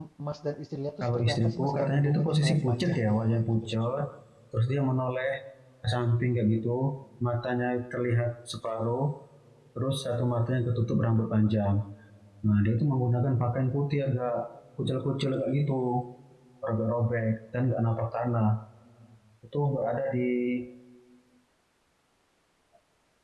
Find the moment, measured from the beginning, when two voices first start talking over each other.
1.0 s

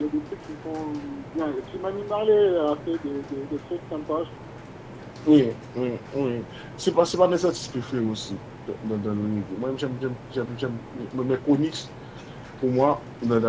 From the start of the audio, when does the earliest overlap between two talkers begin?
none

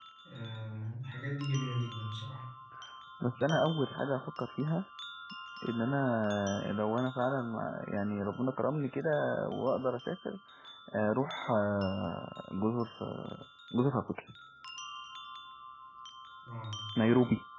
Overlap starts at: none

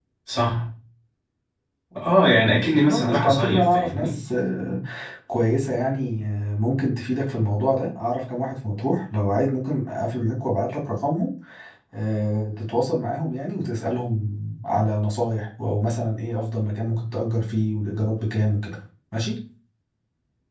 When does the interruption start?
2.8 s

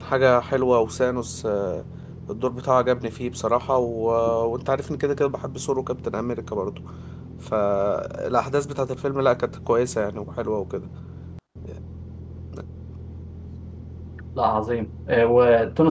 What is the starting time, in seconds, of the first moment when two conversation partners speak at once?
none

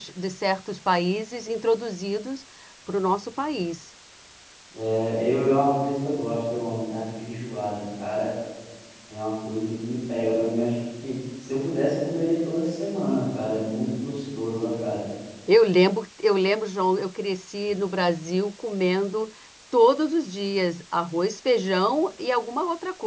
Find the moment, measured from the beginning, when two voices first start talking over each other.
none

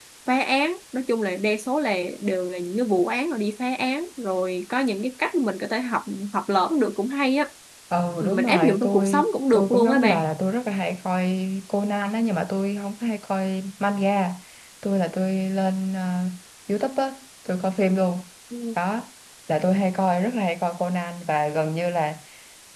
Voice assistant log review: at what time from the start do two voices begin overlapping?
8.2 s

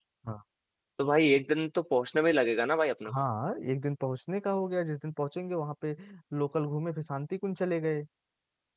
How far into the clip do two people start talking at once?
none

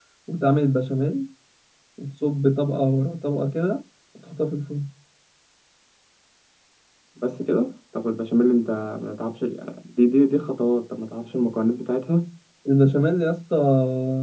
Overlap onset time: none

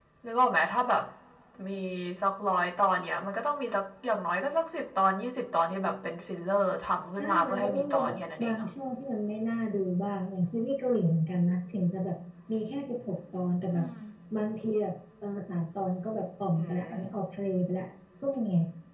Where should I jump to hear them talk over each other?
7.2 s

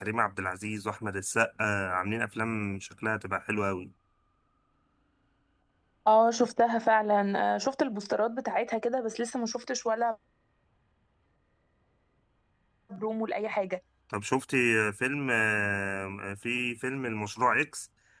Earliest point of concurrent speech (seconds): none

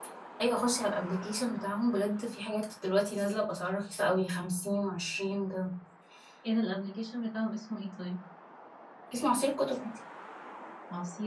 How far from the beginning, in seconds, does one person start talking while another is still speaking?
none

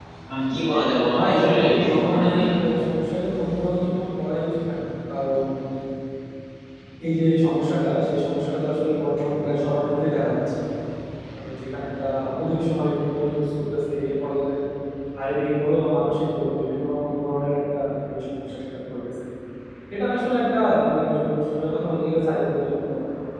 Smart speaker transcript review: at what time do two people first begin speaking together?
1.1 s

